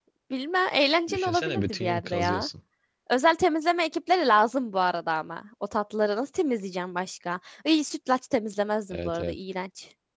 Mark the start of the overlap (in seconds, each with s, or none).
1.1 s